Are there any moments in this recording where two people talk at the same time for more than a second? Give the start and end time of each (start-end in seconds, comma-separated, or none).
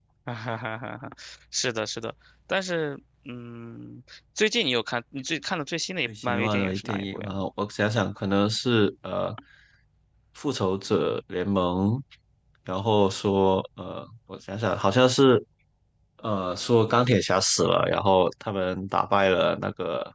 6.1-7.3